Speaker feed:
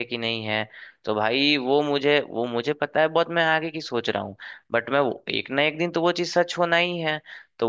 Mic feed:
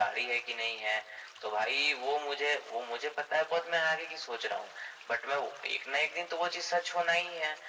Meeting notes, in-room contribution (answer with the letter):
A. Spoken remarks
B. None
B